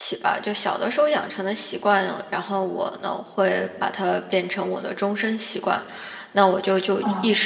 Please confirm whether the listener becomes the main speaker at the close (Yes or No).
No